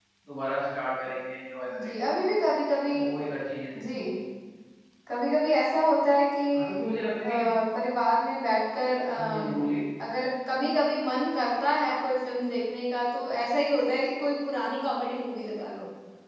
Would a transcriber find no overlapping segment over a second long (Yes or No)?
Yes